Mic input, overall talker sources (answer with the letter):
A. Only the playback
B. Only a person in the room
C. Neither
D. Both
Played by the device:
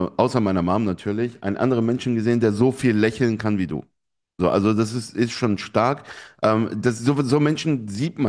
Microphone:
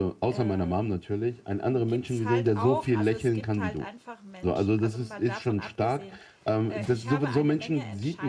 D